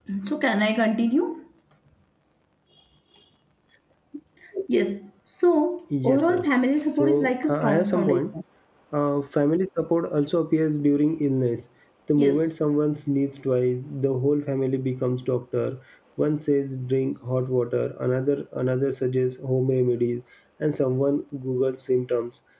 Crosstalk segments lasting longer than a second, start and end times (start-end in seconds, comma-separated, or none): 7.0-8.2